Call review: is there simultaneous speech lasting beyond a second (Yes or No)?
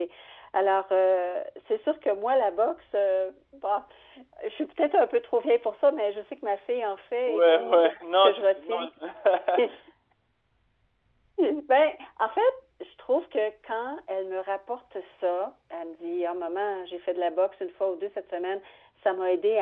Yes